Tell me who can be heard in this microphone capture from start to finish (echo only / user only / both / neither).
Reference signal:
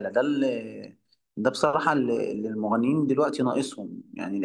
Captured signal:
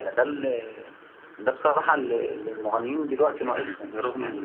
both